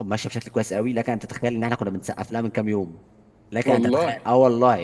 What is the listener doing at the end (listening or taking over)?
listening